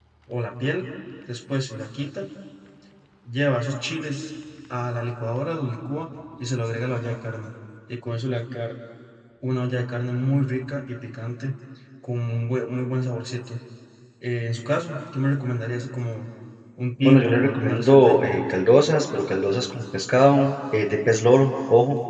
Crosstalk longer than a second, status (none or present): present